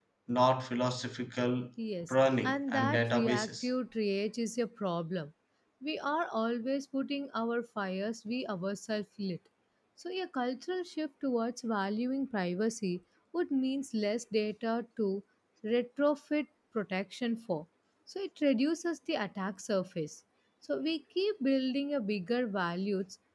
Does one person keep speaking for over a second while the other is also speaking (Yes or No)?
Yes